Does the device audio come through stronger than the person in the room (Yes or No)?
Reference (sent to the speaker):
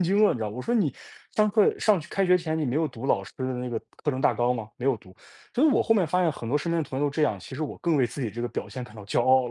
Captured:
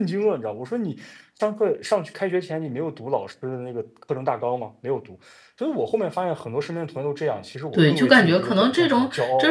No